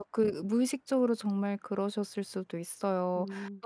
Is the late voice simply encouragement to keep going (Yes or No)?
Yes